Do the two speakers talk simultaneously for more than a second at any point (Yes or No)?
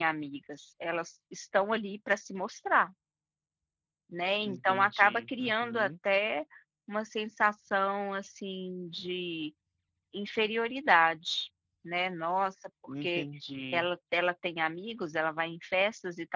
Yes